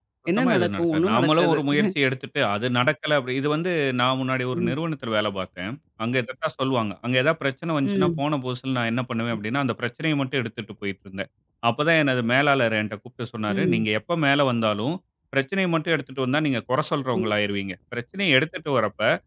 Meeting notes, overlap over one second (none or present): present